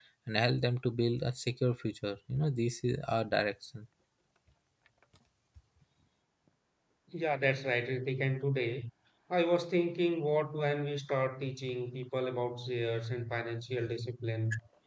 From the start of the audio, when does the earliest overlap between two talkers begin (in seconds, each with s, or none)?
none